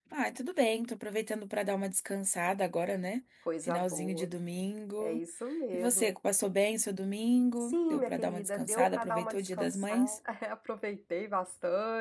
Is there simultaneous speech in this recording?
Yes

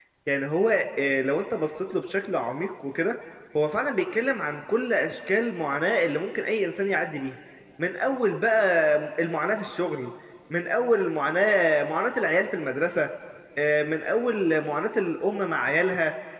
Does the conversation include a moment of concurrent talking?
No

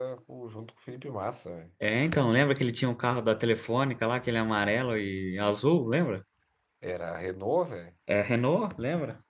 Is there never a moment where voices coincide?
Yes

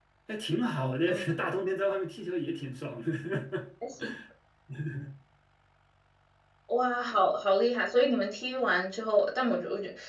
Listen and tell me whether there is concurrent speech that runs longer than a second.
No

